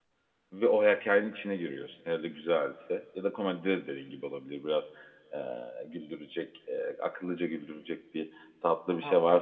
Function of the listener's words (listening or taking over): listening